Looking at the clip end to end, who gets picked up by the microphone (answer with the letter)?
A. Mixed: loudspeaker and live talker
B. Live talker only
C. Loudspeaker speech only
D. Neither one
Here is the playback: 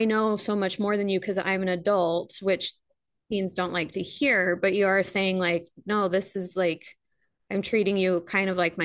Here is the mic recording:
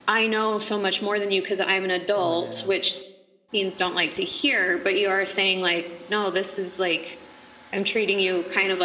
A